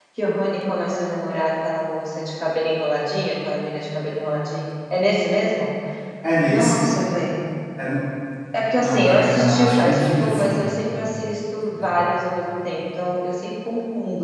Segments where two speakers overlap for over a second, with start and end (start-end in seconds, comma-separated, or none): 8.8-10.7